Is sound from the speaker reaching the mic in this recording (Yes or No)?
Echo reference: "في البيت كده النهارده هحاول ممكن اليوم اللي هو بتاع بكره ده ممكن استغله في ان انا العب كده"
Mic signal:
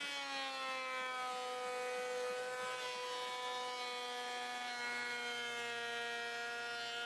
No